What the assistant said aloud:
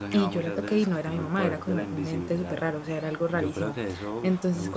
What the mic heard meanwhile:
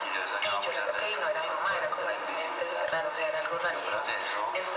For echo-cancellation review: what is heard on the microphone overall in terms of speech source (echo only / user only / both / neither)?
echo only